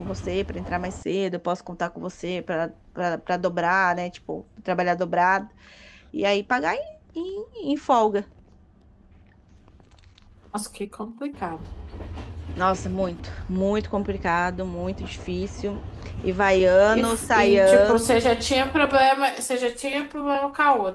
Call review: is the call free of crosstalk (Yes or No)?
No